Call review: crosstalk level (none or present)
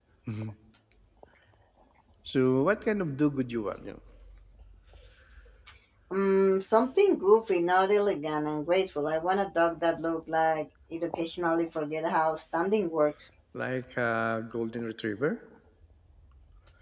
none